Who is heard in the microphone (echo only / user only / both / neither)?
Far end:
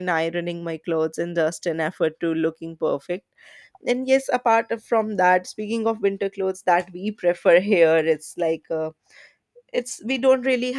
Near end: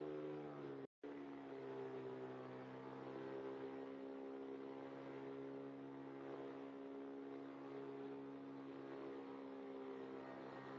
neither